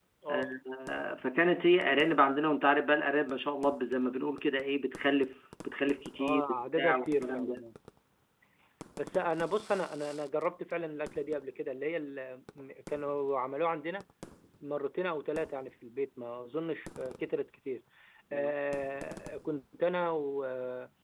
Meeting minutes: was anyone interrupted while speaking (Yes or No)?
Yes